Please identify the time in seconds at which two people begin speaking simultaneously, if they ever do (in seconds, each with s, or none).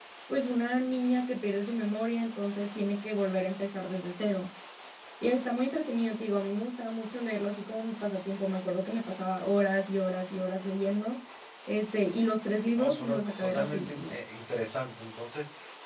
12.8 s